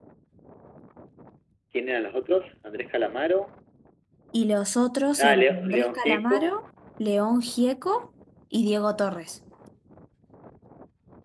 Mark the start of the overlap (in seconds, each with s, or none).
5.2 s